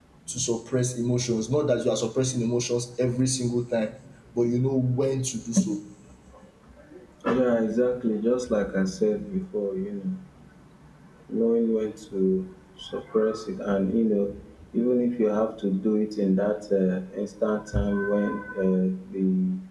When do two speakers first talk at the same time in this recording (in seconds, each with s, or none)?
none